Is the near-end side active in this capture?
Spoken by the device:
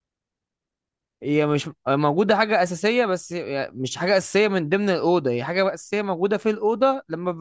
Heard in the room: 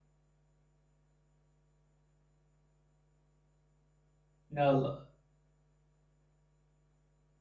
Yes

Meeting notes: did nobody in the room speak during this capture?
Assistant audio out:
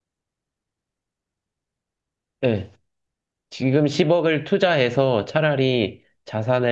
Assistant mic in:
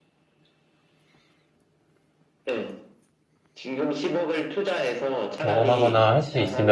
No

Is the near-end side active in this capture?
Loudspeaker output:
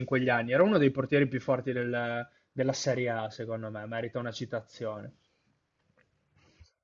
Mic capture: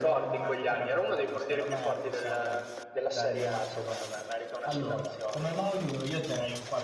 Yes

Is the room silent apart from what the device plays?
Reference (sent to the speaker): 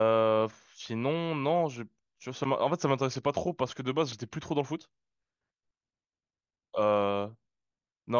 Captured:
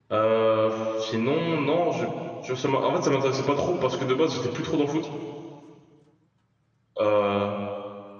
Yes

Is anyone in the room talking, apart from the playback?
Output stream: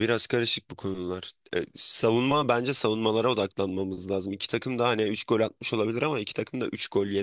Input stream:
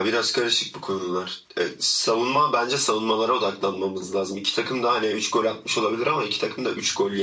No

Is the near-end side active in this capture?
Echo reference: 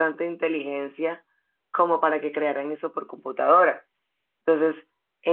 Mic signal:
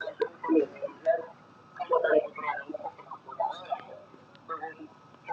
No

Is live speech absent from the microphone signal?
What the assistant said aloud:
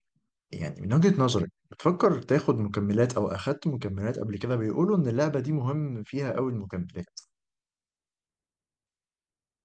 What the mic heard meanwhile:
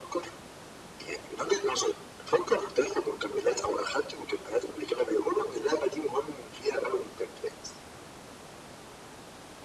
Yes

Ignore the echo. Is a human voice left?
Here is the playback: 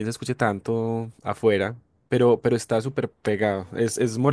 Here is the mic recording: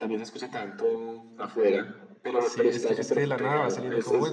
Yes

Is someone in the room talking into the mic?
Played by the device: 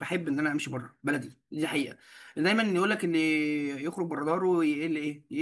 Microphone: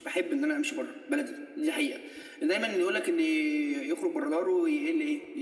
No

